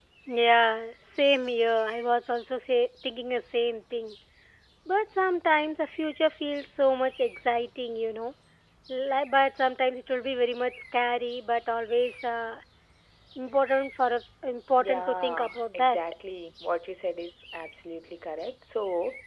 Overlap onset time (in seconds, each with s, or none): 14.8 s